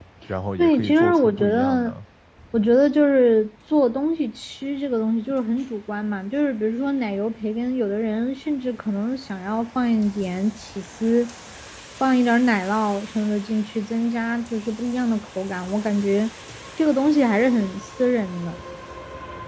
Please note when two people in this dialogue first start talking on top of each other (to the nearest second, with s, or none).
1 s